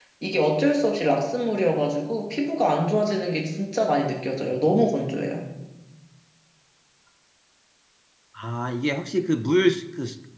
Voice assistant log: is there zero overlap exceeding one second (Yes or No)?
Yes